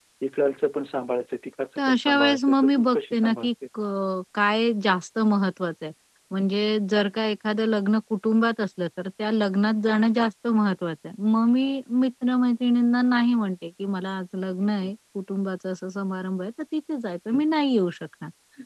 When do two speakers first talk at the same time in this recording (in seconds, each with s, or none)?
1.8 s